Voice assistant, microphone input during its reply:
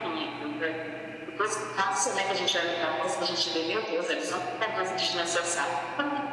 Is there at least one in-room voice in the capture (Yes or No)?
No